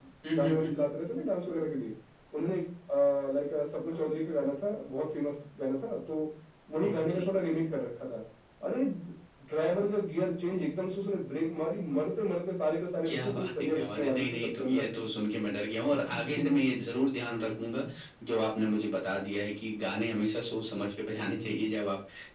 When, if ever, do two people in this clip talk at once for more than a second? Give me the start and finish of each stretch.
13.0-14.8

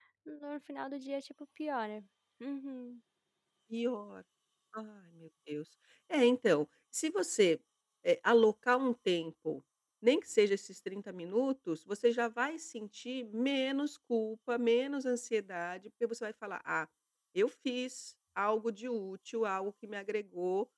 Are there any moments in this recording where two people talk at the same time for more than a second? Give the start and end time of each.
none

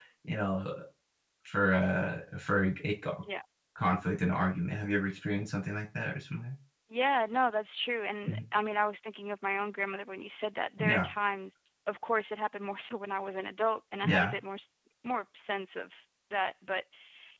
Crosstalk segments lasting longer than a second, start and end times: none

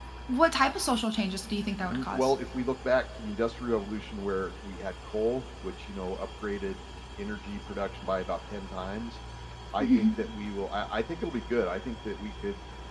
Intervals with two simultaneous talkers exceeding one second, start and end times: none

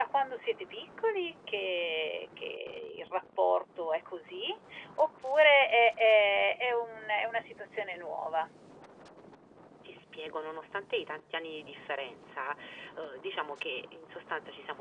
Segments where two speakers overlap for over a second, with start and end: none

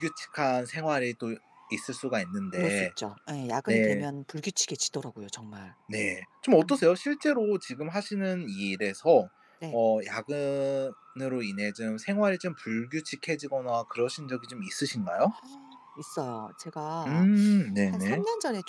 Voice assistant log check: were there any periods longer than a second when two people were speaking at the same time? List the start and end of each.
none

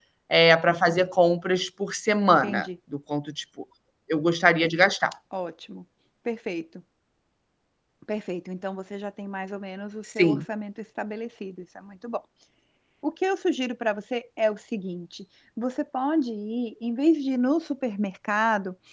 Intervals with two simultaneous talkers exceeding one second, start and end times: none

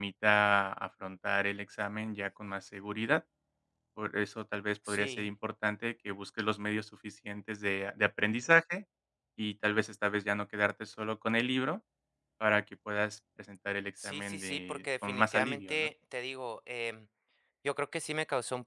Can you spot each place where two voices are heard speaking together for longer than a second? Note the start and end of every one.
14.0-15.9

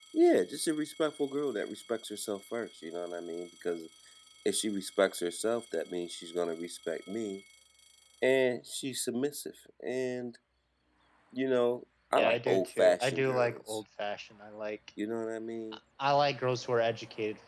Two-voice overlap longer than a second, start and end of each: 12.2-13.8

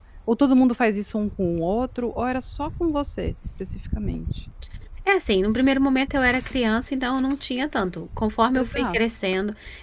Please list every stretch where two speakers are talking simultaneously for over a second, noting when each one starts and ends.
none

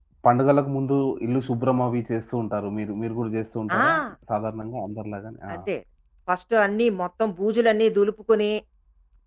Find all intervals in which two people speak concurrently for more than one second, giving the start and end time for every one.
none

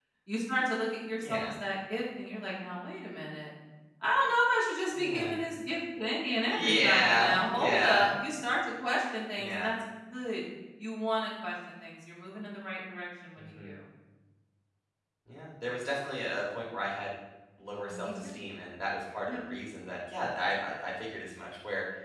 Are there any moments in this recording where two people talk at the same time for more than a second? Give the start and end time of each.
6.5-8.1

